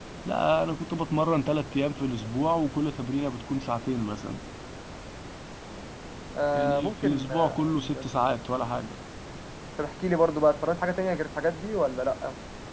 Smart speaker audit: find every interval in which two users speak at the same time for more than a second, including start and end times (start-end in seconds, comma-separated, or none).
6.5-8.0